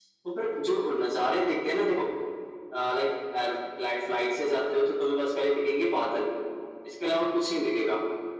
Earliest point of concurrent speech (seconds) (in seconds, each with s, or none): none